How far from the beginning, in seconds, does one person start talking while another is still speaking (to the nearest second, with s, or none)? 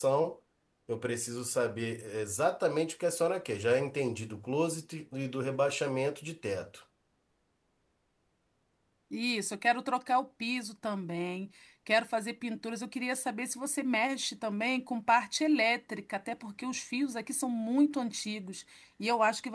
none